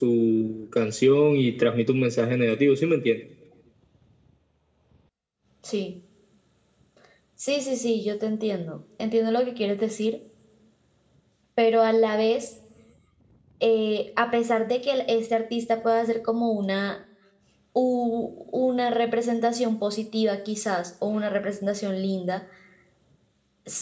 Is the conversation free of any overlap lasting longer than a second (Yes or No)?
Yes